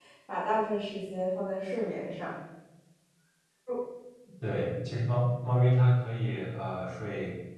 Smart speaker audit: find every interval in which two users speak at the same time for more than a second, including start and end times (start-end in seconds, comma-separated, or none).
none